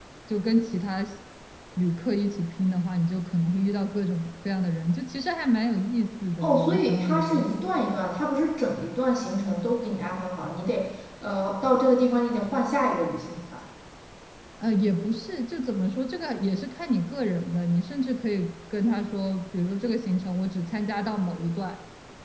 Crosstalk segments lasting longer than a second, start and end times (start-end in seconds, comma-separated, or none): 6.4-7.6